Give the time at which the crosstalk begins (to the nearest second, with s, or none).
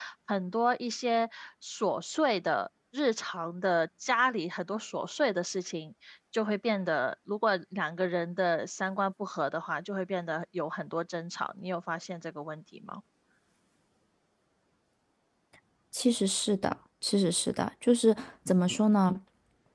none